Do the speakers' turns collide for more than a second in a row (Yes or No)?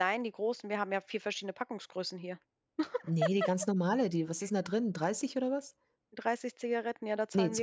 No